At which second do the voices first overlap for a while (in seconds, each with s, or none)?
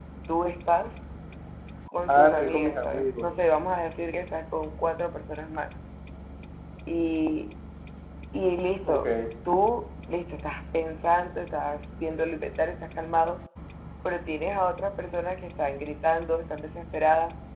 2.1 s